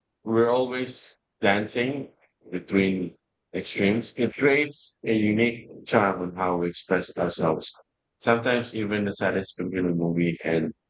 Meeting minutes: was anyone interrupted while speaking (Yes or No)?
No